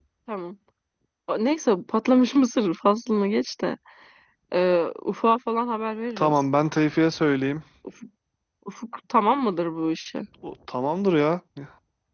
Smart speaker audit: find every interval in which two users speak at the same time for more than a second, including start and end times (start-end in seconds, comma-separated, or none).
none